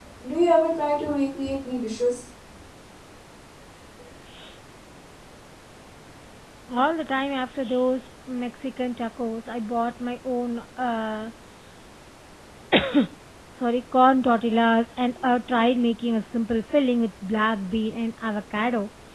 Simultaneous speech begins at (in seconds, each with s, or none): none